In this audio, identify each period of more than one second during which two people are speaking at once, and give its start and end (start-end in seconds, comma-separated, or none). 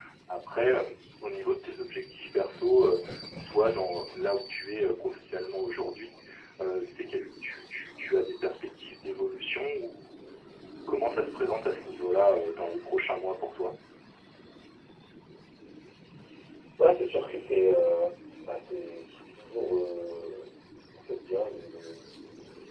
none